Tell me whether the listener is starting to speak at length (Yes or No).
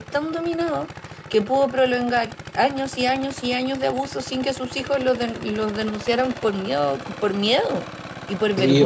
Yes